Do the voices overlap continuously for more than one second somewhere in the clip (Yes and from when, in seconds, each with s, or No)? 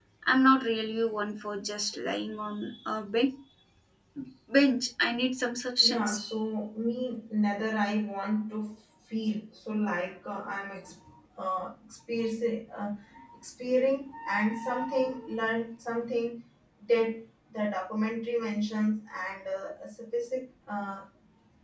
No